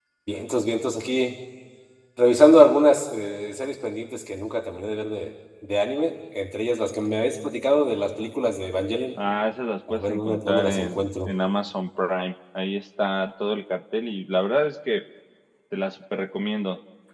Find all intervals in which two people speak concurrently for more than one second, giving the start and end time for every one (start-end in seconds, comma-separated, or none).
9.9-11.3